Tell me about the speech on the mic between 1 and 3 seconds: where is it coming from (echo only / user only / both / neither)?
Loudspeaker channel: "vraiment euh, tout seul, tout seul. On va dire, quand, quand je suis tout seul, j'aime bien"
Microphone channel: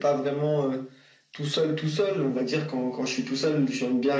echo only